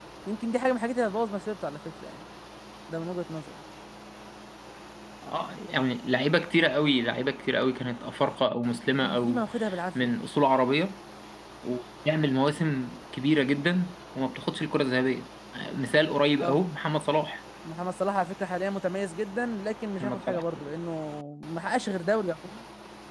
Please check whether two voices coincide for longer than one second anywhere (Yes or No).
No